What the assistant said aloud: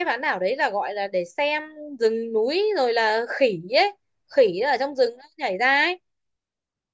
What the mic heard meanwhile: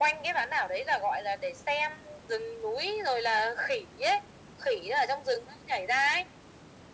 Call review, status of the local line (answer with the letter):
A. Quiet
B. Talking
A